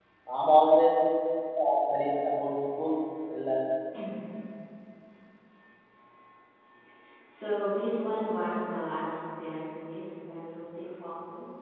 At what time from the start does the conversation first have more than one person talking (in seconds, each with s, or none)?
none